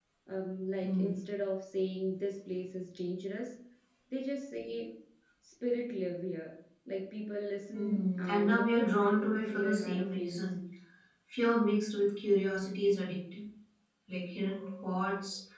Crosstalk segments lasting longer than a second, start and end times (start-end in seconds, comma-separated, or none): 7.7-10.5